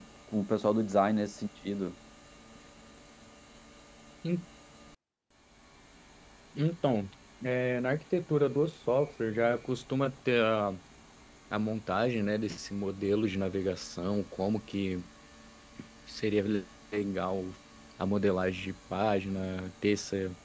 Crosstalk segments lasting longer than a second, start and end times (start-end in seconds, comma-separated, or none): none